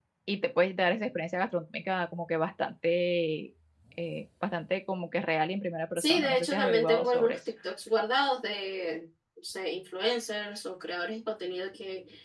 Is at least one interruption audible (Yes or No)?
Yes